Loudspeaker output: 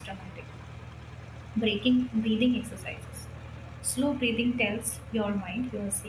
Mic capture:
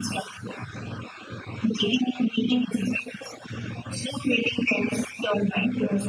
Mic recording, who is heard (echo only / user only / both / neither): echo only